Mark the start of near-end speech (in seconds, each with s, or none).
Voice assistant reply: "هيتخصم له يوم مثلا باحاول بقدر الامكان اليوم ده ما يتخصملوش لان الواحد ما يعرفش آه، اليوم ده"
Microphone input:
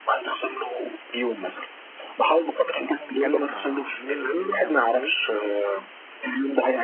3.1 s